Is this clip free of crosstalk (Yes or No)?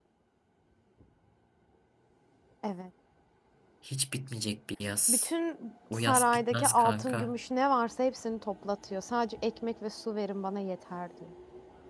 No